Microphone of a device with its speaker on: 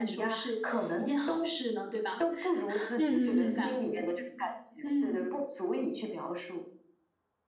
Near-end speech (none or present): present